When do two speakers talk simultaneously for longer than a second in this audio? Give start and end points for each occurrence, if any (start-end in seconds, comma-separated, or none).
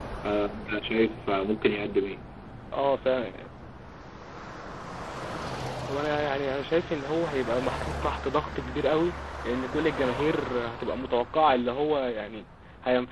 none